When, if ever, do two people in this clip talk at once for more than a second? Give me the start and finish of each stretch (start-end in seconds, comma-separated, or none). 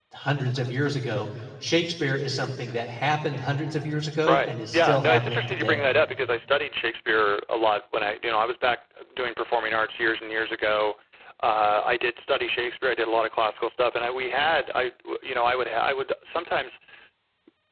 4.3-5.9